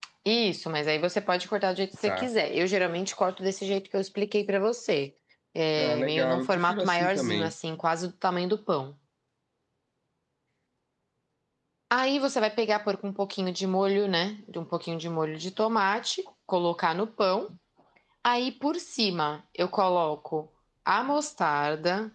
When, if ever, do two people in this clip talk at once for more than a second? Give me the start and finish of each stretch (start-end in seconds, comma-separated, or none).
5.8-7.5